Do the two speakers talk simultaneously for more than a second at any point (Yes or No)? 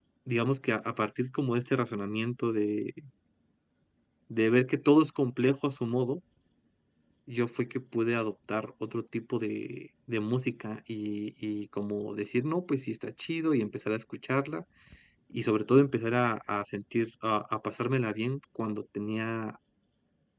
No